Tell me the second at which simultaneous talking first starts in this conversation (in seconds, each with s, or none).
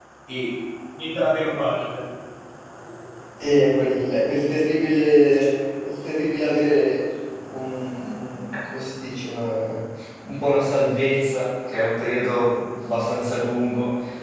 none